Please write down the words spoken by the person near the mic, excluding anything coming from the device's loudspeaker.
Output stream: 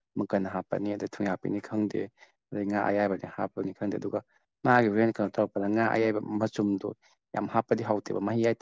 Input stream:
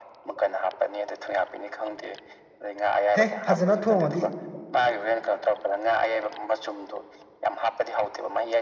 ꯍꯦ ꯐꯖꯅ ꯊꯣꯡꯉꯗꯤ

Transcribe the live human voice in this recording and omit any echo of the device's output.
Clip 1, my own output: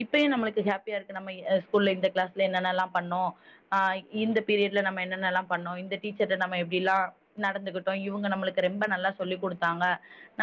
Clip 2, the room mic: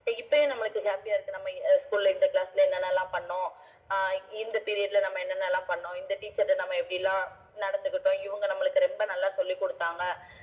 none

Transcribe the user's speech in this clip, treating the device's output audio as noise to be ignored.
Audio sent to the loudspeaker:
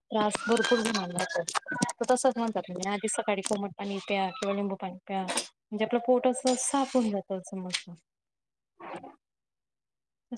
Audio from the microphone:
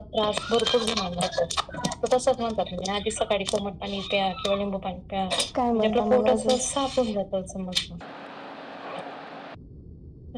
काय म्हणता मग अजून?

